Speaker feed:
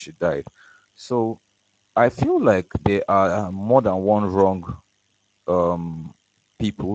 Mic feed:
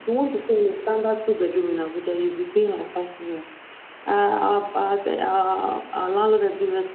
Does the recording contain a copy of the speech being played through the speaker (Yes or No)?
No